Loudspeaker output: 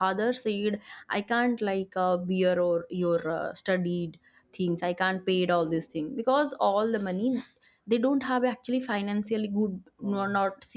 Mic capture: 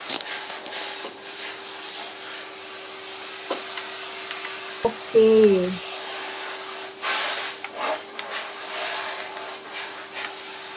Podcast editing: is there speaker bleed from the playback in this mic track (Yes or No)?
No